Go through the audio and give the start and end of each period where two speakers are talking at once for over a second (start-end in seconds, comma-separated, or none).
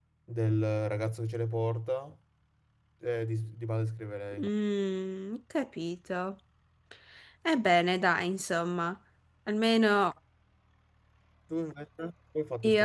none